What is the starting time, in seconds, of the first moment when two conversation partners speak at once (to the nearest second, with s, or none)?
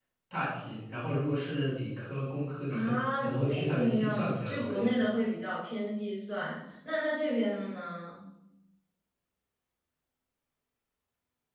3 s